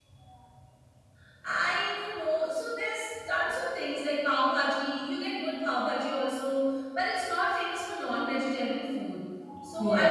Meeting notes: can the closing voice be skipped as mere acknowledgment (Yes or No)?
Yes